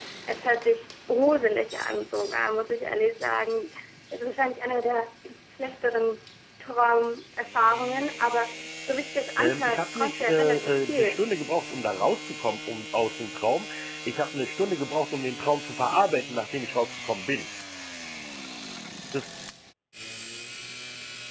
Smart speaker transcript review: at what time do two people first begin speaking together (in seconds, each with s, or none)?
9.4 s